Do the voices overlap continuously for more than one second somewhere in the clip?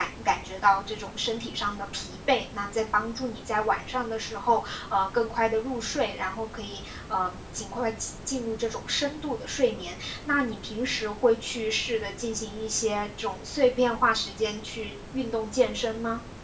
No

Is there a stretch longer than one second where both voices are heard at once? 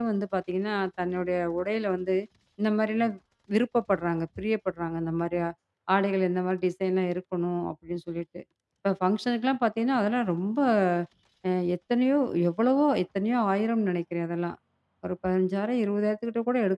No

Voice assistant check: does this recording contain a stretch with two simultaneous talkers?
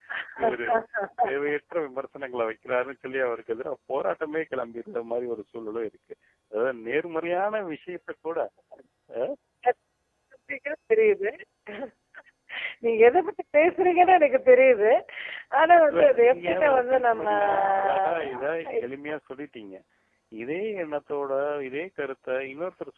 Yes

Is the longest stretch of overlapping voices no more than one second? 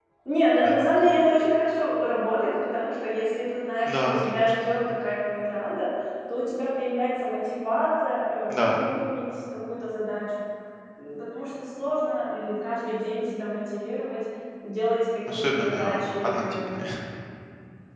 No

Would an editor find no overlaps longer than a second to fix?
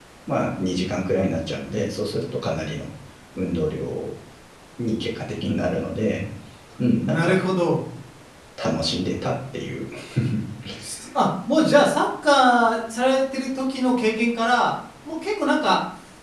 Yes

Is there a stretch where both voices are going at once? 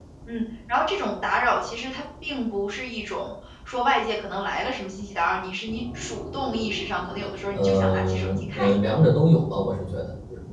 Yes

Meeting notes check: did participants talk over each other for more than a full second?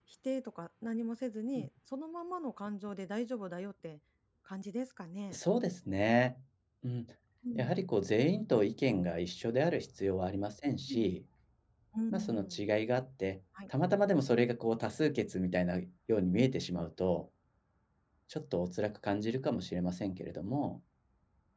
No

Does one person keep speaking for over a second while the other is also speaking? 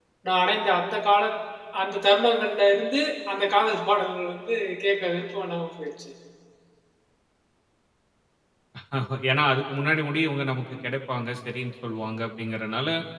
No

